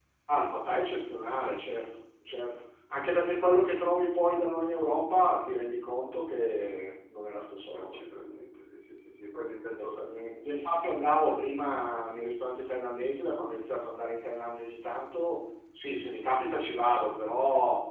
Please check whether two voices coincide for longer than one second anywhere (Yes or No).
No